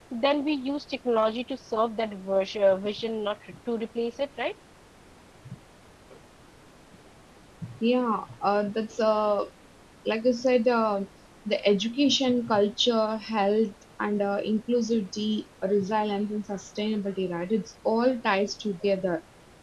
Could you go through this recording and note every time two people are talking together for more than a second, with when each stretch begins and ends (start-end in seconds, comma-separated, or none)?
none